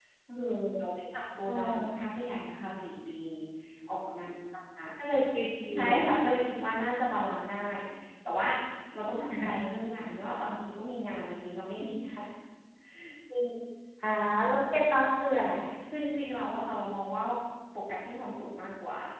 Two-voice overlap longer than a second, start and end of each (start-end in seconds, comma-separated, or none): none